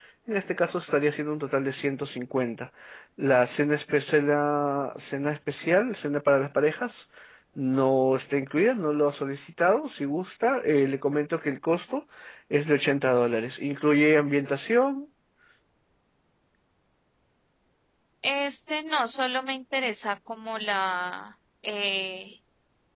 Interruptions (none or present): none